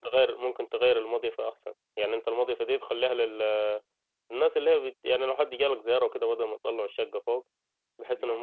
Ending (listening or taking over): listening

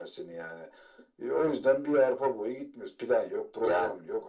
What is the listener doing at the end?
listening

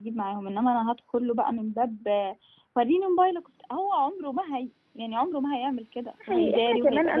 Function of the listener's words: taking over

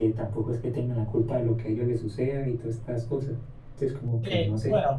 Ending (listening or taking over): taking over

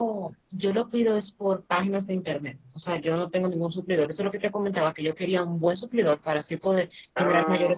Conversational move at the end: listening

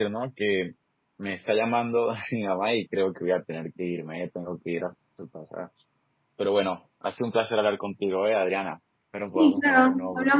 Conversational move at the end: taking over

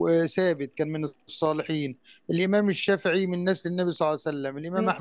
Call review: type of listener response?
listening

